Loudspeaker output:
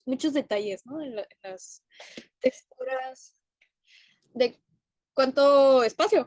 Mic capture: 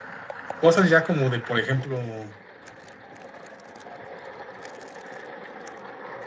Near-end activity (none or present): present